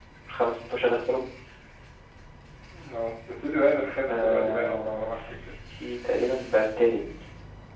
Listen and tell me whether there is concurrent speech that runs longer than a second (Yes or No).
Yes